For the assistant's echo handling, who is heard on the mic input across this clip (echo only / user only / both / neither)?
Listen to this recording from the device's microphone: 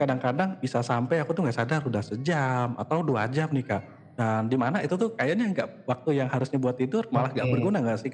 both